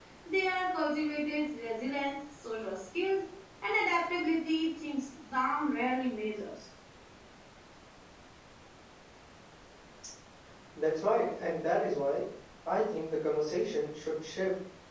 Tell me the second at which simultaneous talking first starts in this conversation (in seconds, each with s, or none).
none